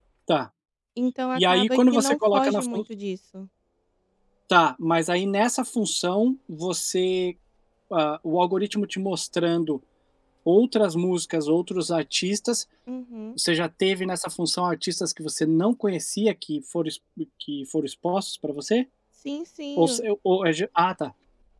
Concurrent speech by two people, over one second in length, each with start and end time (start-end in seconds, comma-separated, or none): 1.4-2.8